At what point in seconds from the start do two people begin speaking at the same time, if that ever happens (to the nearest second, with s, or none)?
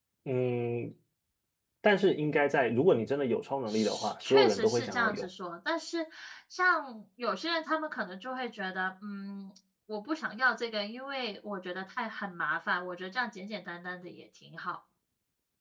4 s